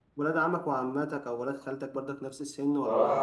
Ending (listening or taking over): taking over